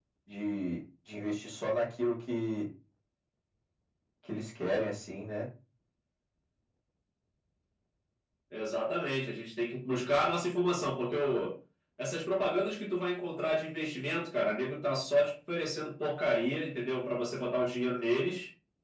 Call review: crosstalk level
none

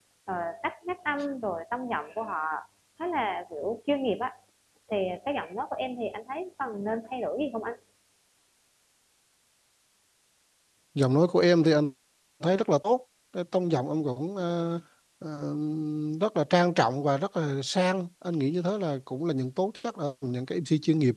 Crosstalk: none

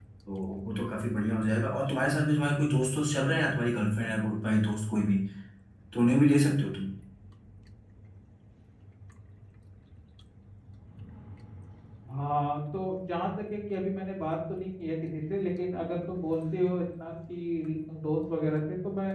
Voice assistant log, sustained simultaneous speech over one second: none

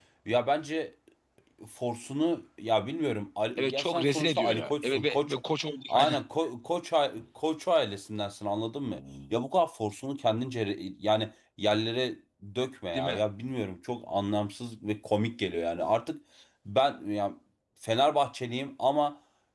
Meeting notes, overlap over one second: present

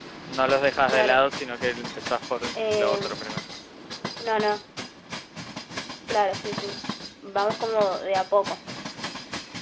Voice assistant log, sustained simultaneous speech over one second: none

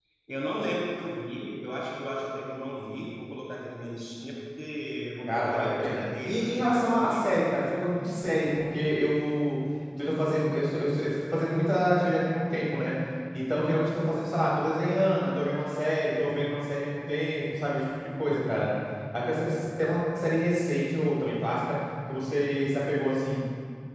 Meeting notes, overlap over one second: present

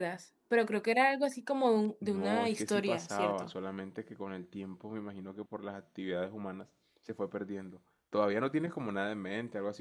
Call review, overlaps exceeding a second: present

